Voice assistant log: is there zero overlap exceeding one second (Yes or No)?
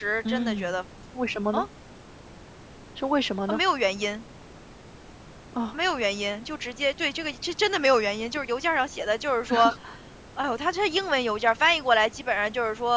Yes